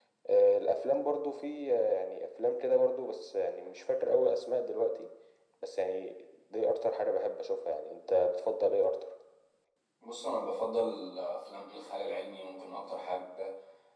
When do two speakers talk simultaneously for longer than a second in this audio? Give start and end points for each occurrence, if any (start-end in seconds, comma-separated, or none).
none